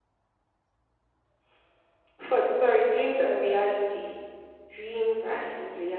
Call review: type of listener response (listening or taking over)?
listening